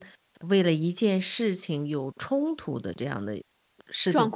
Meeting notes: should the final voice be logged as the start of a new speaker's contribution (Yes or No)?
Yes